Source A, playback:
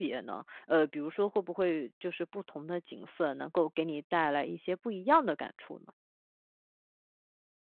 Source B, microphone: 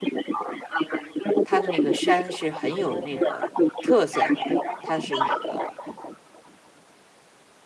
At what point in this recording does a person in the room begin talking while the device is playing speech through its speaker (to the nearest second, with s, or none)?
1 s